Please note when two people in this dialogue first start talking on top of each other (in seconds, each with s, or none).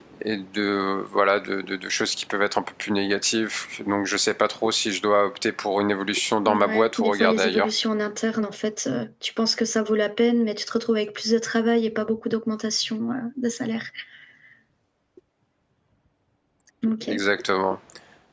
6.5 s